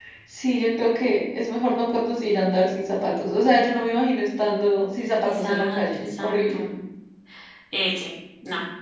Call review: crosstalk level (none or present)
present